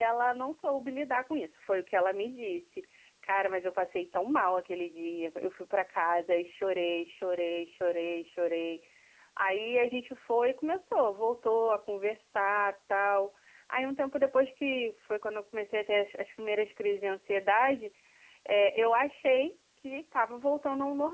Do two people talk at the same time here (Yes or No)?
No